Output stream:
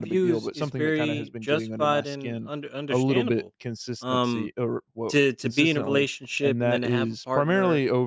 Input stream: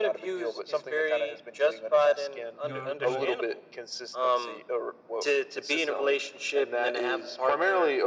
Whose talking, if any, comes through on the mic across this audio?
both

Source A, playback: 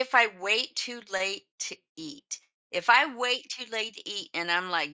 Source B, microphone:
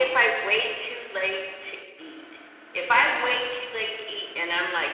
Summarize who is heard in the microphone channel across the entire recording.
echo only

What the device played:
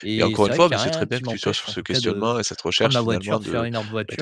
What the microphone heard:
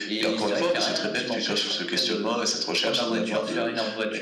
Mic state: echo only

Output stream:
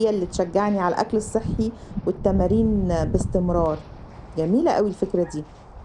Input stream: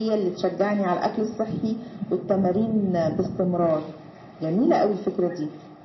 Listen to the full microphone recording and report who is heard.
echo only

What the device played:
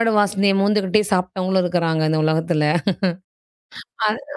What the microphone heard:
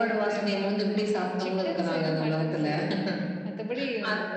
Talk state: both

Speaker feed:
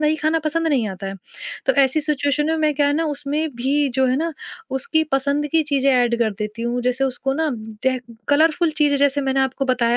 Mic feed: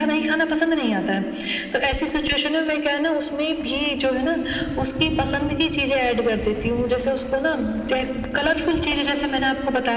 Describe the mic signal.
echo only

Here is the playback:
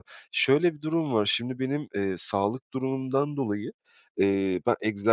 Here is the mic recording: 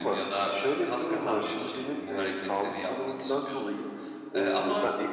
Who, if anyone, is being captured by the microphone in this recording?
both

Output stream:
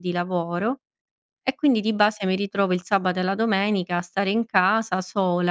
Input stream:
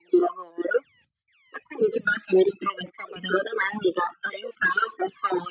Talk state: echo only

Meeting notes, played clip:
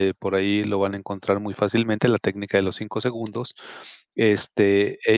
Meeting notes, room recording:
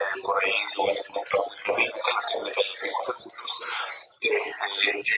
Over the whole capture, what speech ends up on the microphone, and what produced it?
echo only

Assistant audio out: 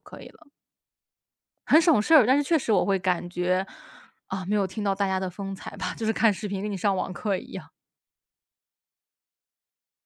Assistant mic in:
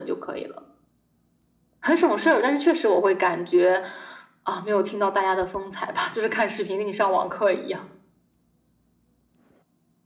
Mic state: echo only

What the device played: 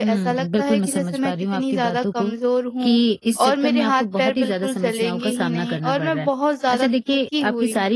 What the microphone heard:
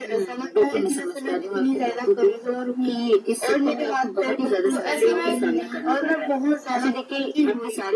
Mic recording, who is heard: both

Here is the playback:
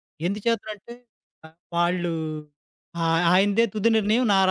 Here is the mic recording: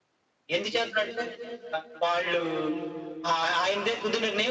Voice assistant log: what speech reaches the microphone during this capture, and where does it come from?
echo only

